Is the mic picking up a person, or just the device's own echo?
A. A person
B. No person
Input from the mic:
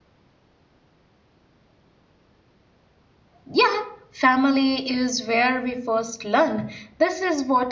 A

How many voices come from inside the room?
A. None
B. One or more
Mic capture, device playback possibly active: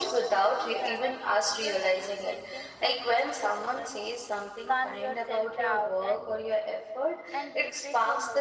B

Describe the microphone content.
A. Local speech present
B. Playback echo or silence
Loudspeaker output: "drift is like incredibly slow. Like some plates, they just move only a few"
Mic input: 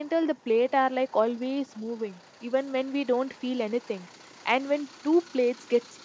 A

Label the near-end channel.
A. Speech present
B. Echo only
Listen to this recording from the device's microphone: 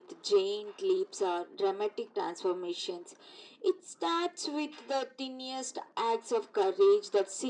B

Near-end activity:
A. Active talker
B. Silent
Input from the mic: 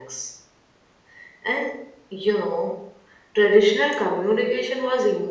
B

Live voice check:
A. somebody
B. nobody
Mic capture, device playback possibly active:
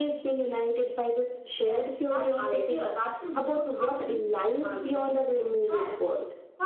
B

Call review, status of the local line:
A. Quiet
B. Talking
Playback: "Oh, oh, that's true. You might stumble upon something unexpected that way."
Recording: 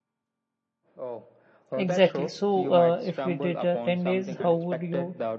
B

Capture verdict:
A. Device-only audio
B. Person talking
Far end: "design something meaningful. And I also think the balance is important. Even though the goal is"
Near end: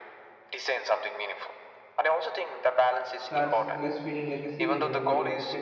B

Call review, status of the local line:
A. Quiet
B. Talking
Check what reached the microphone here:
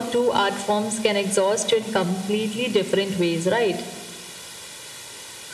A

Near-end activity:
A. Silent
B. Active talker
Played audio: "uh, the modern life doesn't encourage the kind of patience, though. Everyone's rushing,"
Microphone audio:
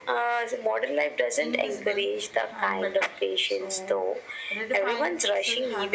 B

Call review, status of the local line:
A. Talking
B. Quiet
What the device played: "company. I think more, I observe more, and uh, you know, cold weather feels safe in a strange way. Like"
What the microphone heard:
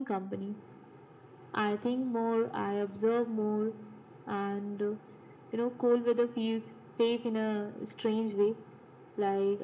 B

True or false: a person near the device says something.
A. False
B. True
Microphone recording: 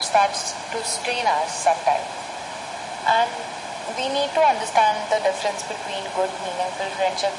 A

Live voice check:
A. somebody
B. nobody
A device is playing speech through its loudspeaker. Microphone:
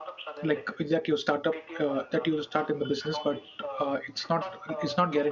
A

